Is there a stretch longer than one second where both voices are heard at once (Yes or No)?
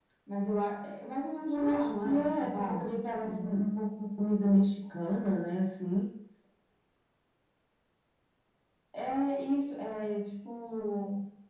Yes